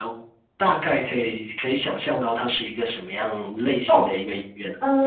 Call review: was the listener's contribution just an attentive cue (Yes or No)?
No